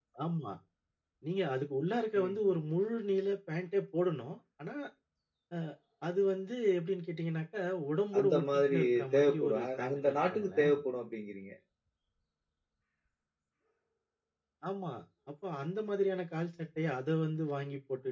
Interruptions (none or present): present